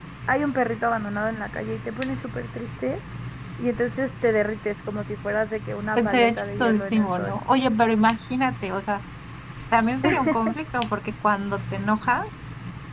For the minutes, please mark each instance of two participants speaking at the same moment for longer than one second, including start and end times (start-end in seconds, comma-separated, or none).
6.0-7.4